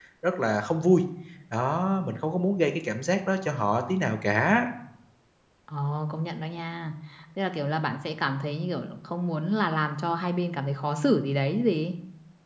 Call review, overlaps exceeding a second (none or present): none